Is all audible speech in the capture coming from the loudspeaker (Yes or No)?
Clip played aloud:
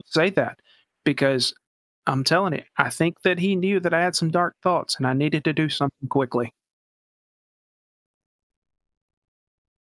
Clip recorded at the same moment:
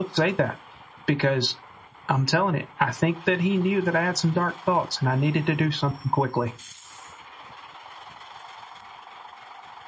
Yes